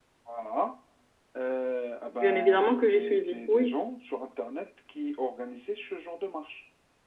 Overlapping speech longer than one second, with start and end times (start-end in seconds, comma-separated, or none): 2.2-3.8